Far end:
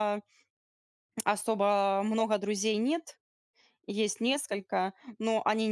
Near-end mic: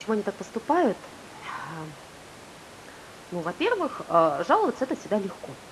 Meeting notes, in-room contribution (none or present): present